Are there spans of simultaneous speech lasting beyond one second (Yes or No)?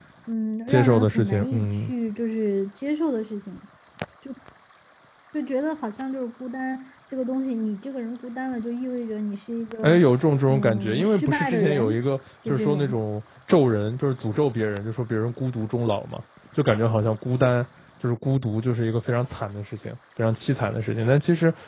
Yes